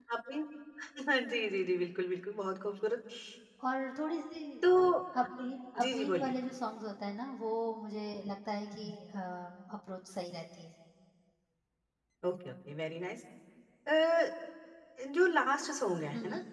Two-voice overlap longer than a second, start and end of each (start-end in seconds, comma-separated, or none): none